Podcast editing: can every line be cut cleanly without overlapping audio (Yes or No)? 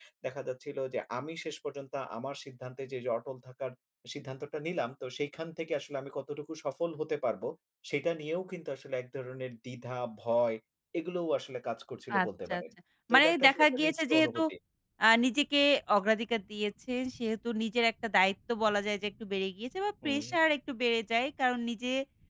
No